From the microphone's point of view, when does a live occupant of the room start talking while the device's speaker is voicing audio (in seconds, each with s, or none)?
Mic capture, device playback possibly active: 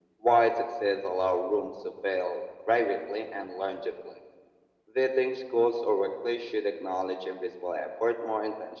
none